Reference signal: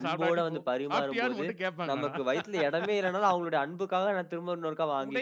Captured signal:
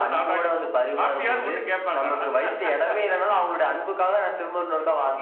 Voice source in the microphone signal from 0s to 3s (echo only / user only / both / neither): echo only